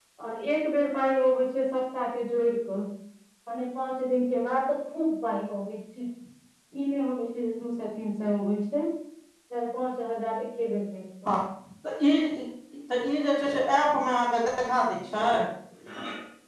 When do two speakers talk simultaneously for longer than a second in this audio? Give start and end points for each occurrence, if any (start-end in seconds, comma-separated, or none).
none